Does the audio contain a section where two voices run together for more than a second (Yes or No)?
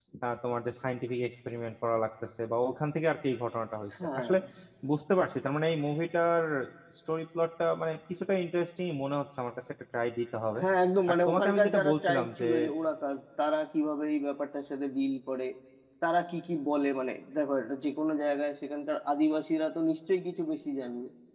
Yes